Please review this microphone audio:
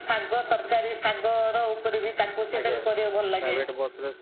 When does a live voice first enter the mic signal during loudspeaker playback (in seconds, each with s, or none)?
2.6 s